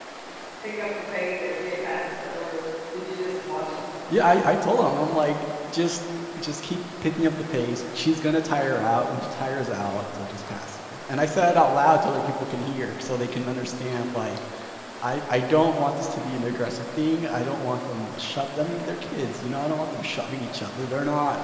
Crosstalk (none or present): none